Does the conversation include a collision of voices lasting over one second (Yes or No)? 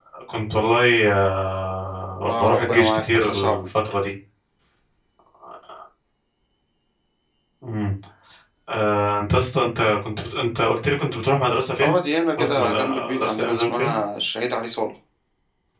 Yes